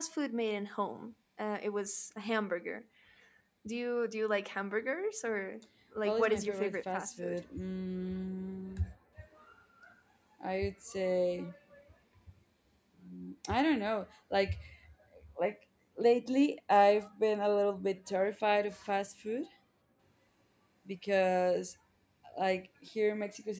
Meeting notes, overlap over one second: present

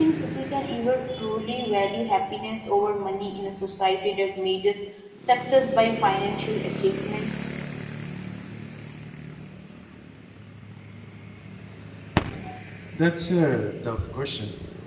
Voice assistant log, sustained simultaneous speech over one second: none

